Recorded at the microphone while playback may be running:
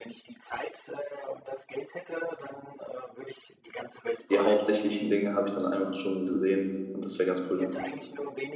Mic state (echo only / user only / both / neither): both